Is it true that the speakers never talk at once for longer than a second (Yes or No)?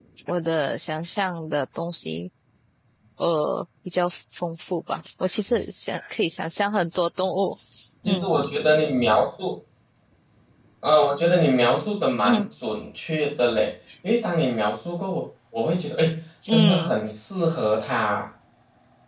Yes